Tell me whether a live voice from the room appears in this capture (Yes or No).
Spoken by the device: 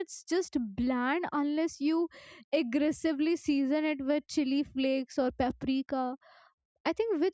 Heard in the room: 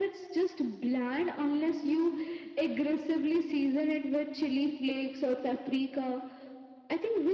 No